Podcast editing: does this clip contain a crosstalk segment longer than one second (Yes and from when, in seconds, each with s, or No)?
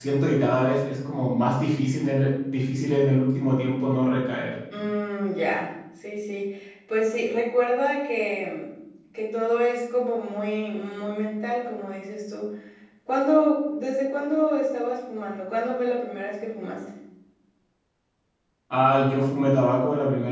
No